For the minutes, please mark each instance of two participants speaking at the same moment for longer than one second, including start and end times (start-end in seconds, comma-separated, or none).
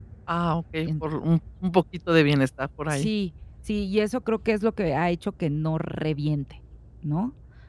none